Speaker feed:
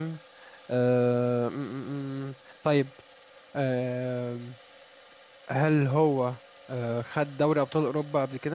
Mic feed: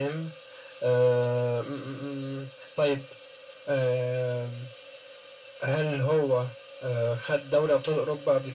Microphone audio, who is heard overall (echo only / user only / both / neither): echo only